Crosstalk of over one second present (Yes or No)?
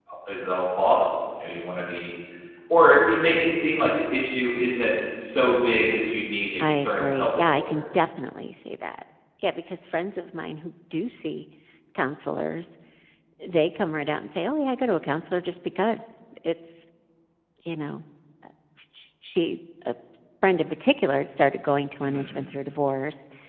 Yes